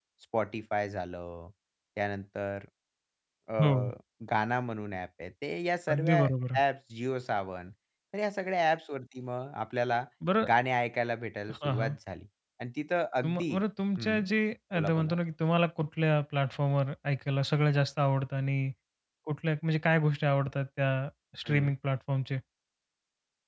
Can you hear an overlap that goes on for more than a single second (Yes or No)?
No